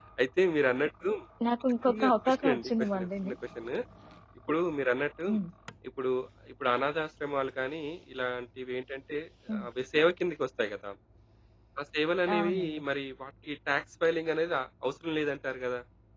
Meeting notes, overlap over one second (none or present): present